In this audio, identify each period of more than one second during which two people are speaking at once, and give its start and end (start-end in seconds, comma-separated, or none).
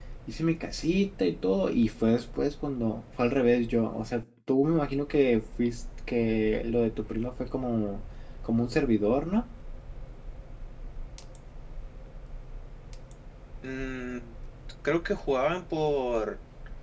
none